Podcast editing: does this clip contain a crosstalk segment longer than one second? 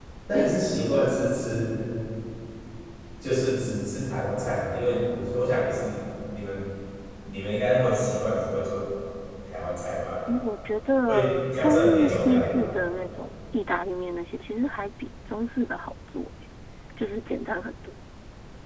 Yes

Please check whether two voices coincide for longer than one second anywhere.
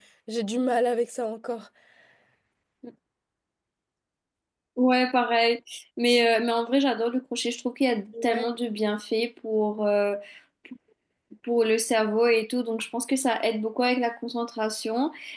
No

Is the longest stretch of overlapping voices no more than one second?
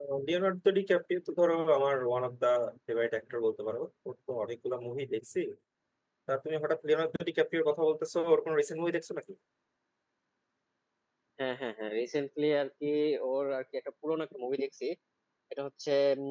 Yes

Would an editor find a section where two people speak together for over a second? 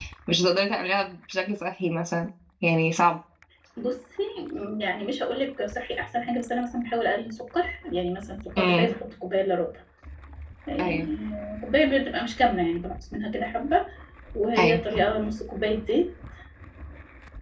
No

